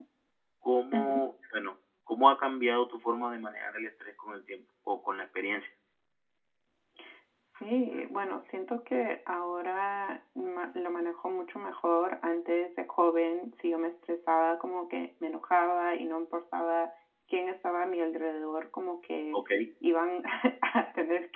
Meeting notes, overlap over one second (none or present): none